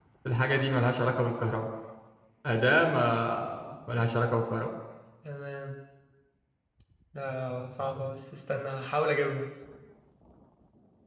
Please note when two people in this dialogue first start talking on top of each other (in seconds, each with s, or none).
none